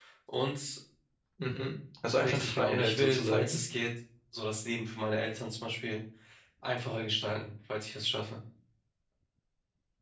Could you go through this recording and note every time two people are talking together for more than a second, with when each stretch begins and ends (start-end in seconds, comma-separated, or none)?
2.2-3.6